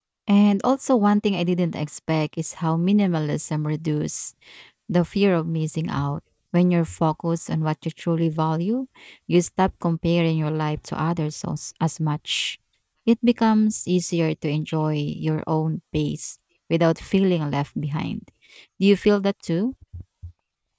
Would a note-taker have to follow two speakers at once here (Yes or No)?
No